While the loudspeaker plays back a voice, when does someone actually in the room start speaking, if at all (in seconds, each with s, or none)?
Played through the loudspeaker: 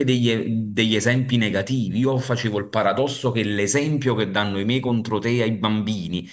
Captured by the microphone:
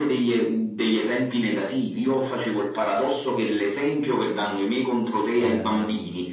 5.3 s